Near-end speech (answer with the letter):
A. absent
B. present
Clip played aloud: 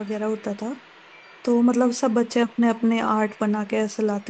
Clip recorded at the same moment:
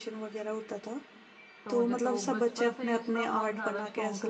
B